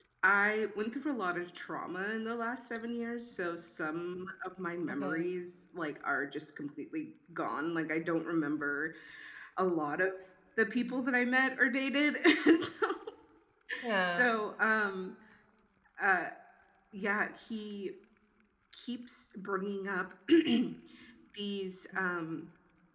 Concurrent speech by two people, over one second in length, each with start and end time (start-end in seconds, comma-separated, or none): none